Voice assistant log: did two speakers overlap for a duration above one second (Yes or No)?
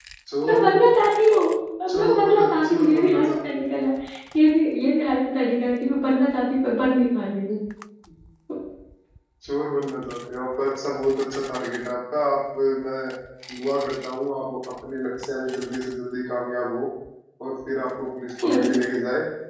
Yes